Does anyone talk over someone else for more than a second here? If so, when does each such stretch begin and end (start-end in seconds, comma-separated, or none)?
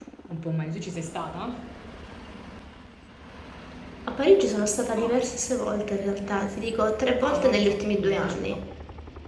7.2-8.6